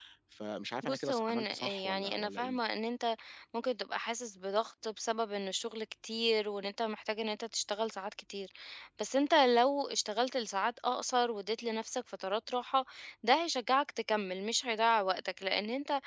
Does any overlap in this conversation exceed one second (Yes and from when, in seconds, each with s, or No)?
Yes, from 0.8 s